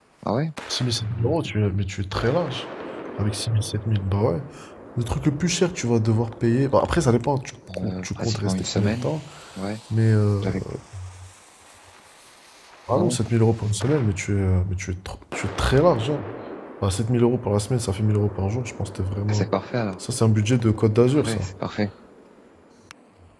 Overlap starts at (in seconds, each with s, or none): 7.8 s